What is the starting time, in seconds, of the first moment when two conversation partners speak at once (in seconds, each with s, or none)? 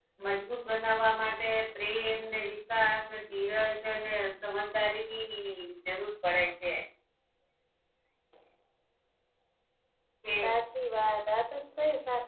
none